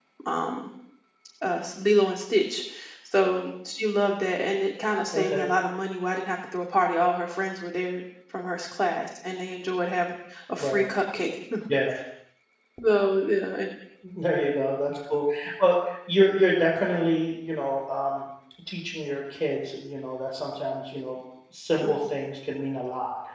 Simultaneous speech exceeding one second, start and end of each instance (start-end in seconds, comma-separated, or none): none